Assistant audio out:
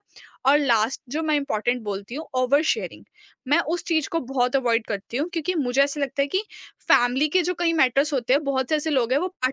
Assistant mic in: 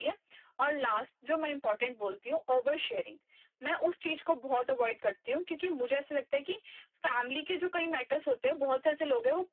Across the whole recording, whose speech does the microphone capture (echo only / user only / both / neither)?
echo only